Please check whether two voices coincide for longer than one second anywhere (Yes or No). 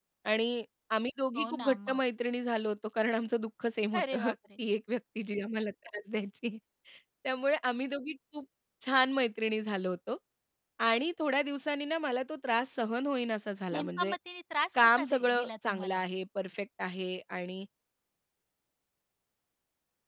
Yes